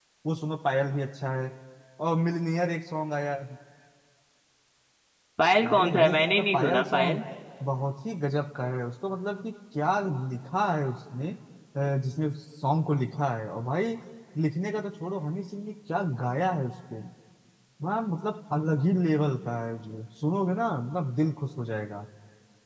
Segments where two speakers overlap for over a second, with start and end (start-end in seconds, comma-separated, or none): 5.7-7.2